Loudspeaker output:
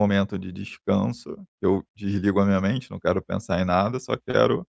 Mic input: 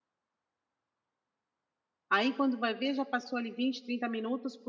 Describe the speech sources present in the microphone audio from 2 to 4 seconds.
user only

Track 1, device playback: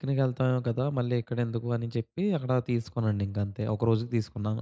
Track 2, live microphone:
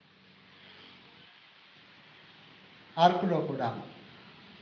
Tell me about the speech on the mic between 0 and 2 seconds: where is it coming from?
neither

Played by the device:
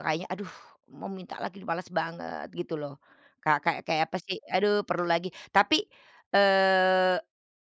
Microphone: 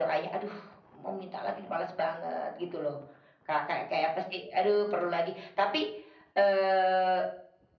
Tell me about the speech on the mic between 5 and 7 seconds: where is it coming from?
echo only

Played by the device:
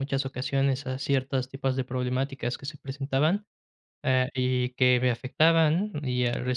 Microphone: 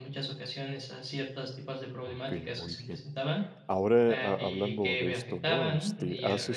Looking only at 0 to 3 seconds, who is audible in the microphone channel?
both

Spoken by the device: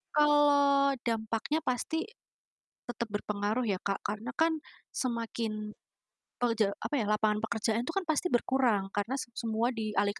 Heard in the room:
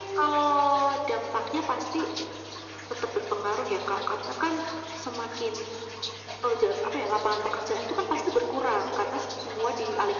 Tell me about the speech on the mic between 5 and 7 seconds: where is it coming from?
echo only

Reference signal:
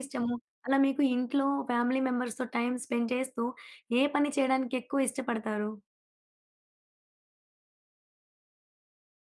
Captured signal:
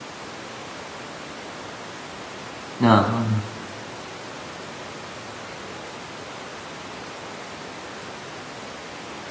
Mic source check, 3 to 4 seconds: user only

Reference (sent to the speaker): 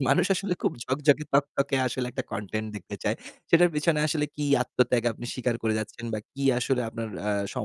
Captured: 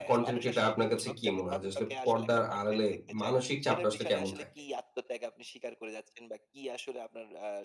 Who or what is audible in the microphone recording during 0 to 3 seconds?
both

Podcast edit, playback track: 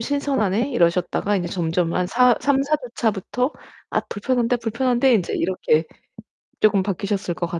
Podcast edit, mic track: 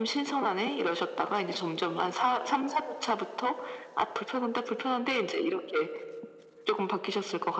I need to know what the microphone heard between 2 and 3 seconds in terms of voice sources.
echo only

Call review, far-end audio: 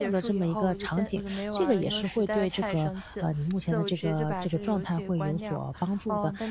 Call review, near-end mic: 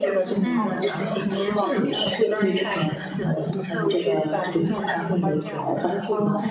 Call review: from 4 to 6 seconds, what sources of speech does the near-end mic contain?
echo only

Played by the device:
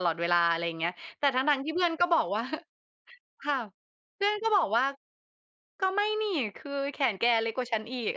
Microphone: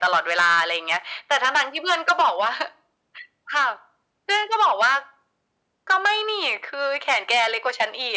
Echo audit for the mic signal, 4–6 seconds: echo only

